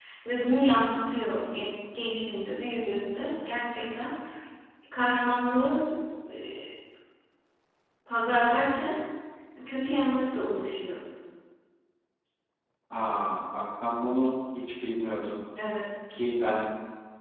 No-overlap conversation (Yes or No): Yes